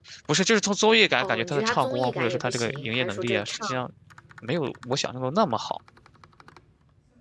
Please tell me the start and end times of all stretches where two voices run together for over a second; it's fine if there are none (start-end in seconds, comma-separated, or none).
1.2-3.7